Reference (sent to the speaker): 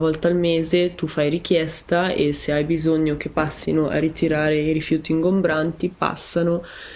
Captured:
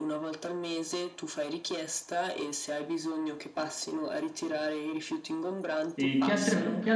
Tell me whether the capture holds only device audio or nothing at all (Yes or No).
No